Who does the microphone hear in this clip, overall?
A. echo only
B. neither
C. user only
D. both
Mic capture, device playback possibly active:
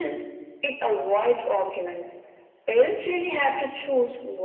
A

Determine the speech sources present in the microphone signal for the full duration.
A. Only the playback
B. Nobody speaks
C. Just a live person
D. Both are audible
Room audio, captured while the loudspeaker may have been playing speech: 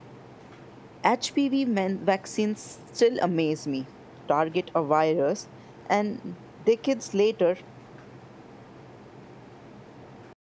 C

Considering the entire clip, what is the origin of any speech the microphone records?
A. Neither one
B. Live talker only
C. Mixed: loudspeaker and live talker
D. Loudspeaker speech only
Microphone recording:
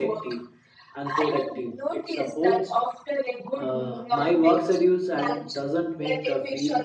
C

